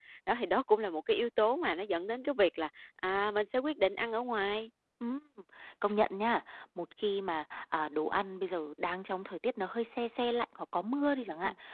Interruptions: none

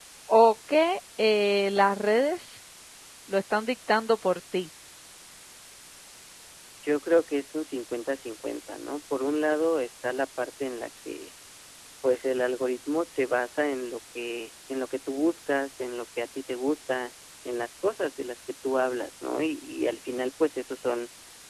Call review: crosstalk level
none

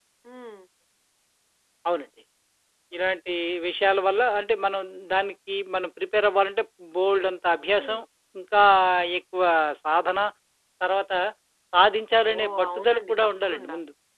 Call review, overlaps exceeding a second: present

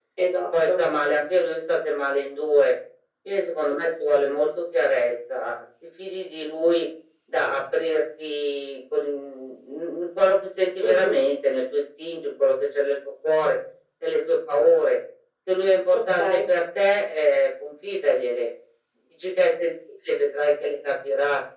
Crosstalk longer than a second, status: none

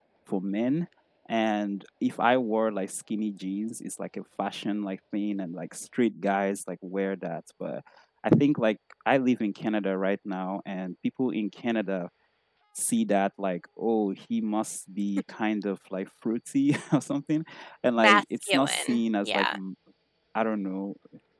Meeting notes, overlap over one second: present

